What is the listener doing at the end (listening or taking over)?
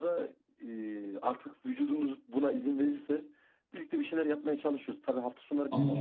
listening